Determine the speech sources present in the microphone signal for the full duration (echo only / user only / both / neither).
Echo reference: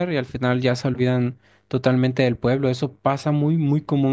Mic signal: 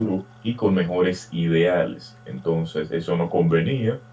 user only